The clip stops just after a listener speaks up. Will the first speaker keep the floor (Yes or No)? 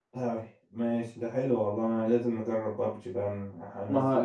Yes